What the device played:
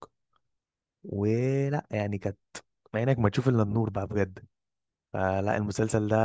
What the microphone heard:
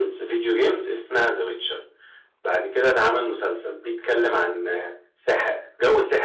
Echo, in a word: none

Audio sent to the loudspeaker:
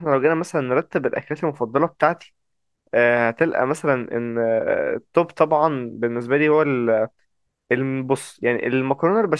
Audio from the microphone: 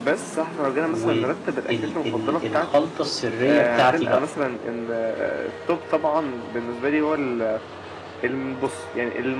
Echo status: present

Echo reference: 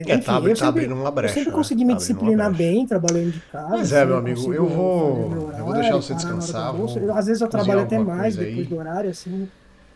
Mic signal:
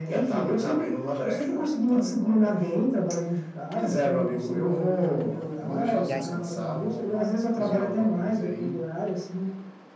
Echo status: present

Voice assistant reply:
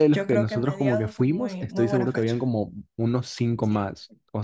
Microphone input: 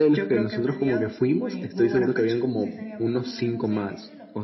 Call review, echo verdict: present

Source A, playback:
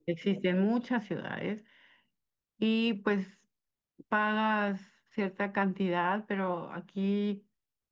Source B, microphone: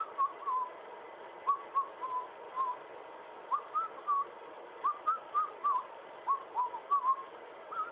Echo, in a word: none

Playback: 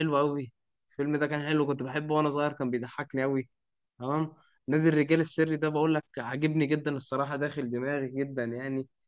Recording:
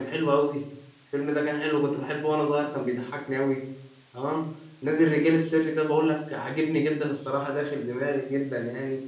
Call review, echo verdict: present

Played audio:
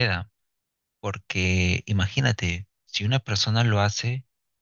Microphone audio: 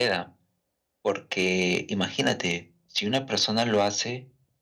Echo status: present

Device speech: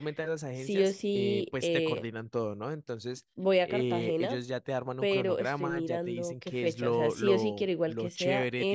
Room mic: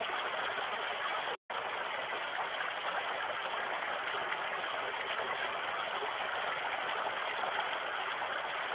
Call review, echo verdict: none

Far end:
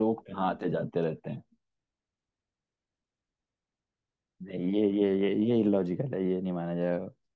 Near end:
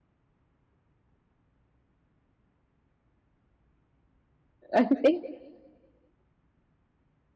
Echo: none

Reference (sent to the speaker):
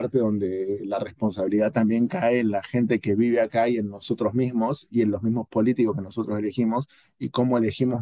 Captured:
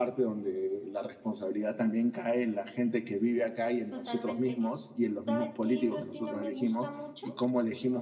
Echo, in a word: present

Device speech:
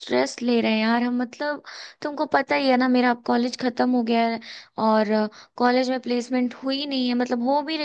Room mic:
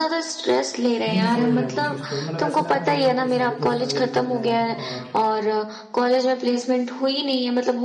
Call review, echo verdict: present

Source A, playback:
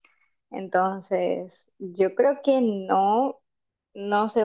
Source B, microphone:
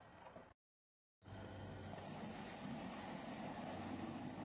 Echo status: none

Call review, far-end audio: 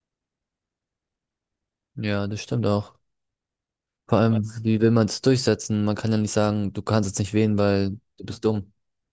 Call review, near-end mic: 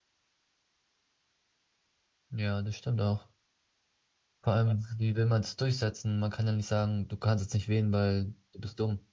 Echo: present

